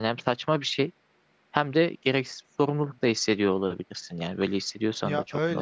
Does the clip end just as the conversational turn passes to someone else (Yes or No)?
Yes